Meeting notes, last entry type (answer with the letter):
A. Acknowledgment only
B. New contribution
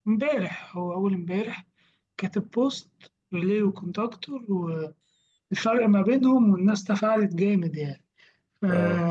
A